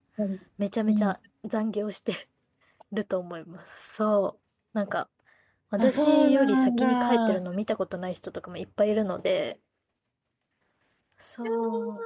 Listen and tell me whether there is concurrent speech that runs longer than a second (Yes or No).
Yes